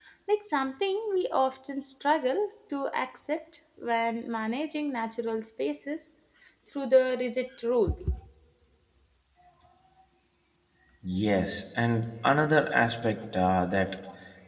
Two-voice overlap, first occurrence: none

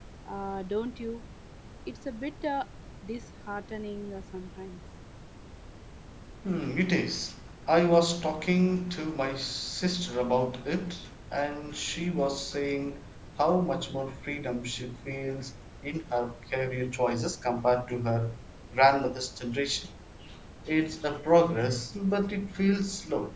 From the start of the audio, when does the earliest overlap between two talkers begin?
none

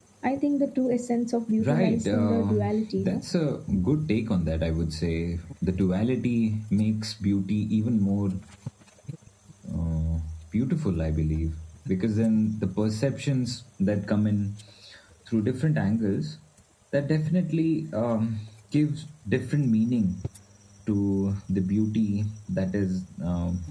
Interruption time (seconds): 1.6 s

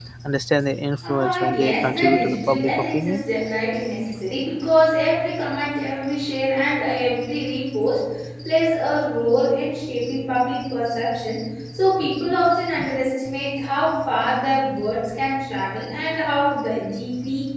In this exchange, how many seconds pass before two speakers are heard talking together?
1.1 s

